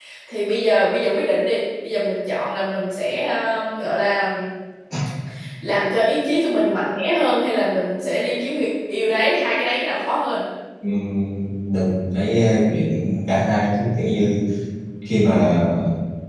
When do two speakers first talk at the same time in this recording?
none

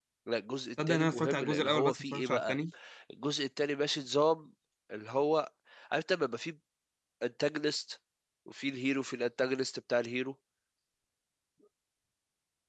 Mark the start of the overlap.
0.9 s

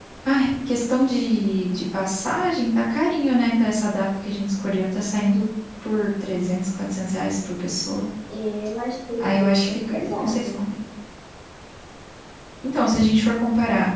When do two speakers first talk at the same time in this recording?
9.2 s

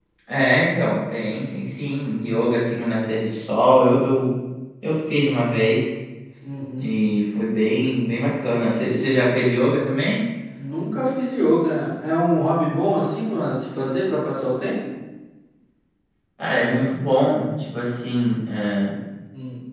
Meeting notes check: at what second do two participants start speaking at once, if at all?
none

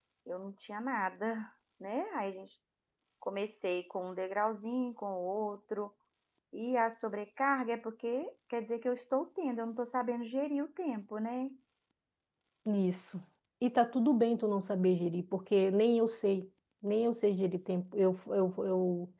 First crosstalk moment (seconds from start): none

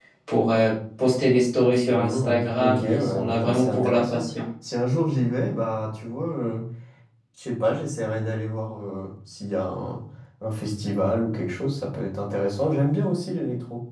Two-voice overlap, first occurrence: 1.9 s

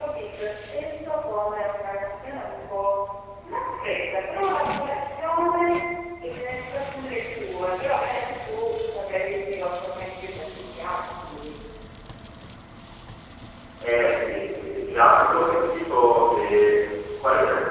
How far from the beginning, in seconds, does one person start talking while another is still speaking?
none

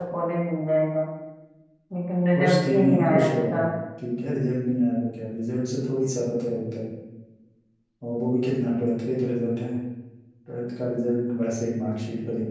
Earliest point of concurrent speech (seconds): 2.4 s

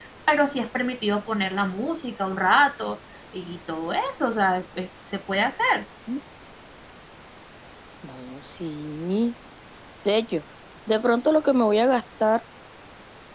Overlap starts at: none

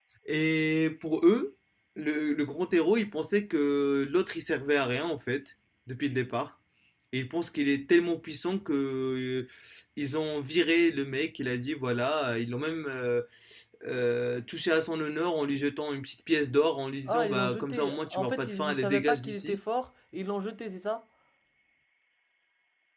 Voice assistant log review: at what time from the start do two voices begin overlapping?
17.1 s

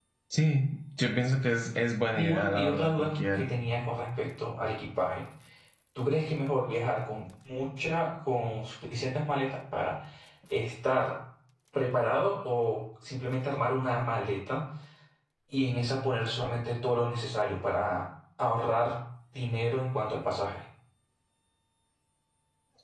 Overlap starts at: 2.1 s

